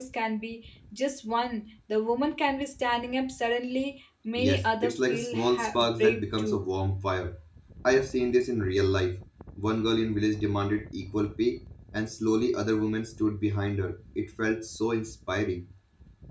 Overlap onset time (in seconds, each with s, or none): 4.4 s